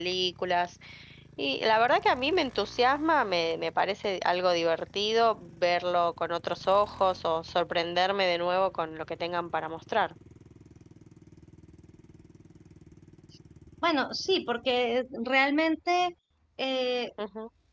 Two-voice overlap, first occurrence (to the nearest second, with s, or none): none